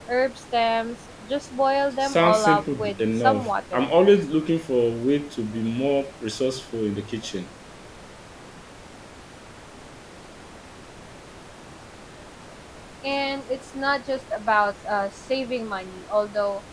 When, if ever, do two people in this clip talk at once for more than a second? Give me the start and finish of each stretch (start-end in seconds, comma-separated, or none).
2.0-3.9